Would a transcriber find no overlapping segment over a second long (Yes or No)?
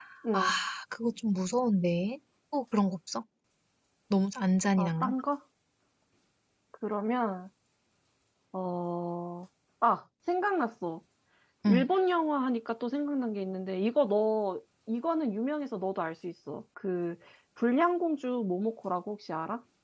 Yes